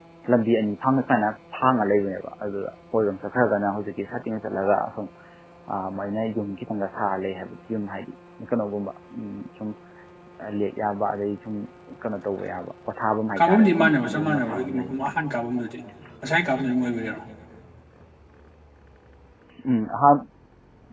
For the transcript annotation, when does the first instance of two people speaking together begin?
13.4 s

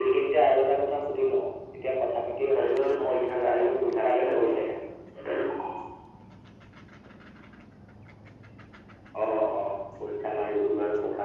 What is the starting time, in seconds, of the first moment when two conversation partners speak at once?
2.5 s

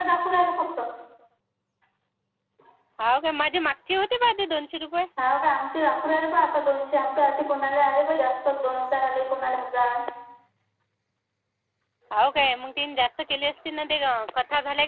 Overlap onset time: none

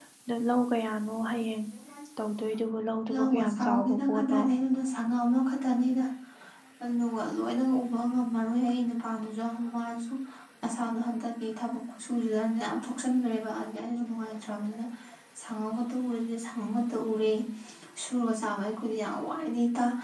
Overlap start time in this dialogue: 3.1 s

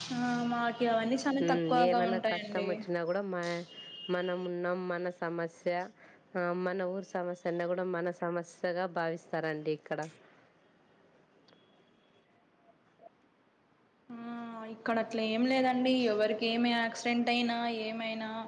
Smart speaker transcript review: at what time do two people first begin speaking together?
1.3 s

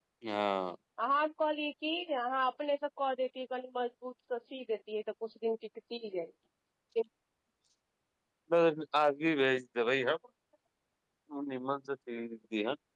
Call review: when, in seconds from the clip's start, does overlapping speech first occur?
none

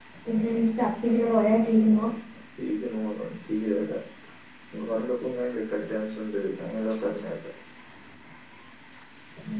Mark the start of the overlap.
none

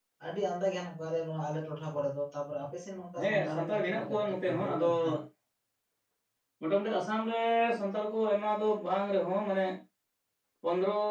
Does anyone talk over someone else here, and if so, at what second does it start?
3.2 s

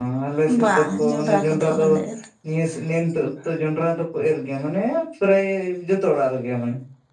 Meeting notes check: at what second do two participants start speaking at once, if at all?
0.6 s

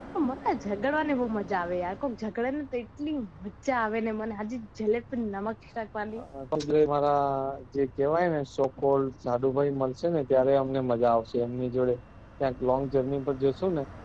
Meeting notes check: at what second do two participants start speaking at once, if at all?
none

